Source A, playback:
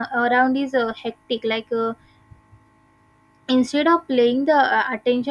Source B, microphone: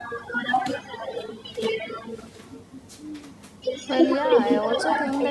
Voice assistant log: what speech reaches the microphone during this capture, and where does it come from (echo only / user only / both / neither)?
both